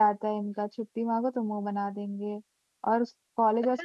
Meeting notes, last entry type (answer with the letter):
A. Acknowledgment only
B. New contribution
B